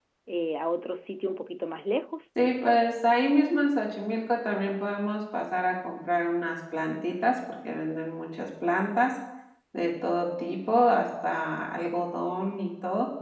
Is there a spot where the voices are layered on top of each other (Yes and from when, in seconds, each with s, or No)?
No